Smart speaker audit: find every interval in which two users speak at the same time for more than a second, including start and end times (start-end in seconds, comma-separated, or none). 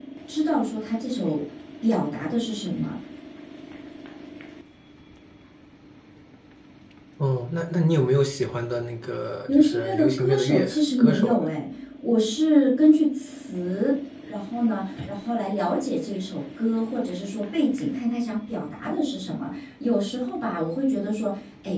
9.5-11.4